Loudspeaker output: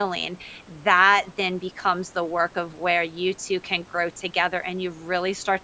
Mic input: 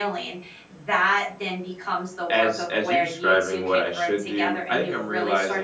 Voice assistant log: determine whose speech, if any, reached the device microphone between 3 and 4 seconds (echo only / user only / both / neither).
both